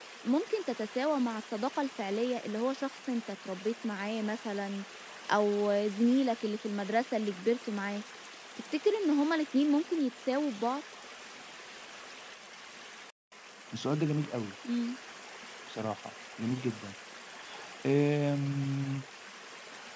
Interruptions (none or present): none